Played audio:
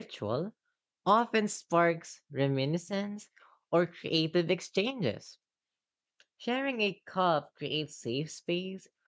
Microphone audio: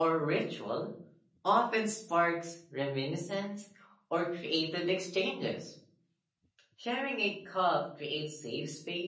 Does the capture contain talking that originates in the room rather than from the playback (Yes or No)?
No